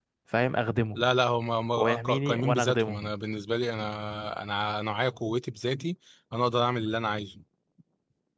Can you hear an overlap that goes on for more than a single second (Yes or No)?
Yes